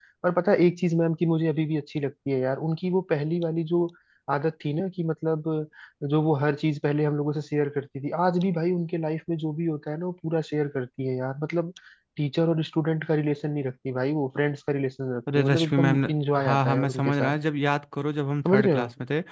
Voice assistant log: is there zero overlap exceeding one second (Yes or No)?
No